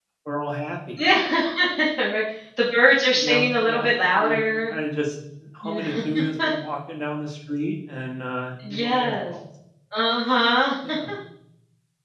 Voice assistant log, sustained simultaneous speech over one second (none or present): present